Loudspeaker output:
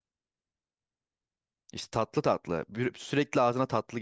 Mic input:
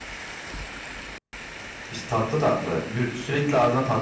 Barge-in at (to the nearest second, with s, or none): none